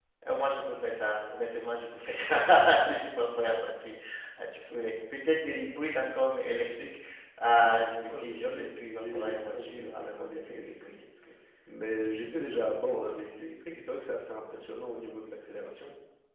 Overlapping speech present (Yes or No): Yes